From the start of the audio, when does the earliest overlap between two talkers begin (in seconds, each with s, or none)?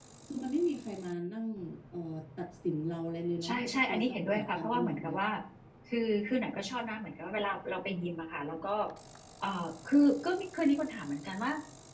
3.4 s